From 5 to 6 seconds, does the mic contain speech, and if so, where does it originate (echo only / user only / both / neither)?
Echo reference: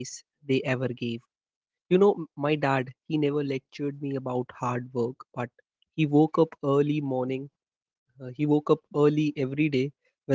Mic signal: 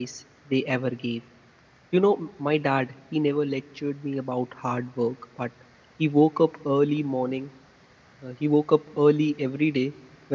echo only